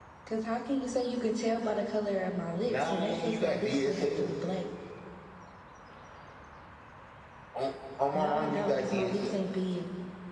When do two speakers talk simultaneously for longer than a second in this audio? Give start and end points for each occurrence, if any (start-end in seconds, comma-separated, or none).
2.7-4.3, 8.1-9.4